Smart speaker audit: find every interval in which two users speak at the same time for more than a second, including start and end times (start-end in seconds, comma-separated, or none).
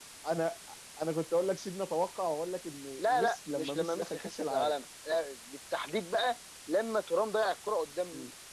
3.0-4.7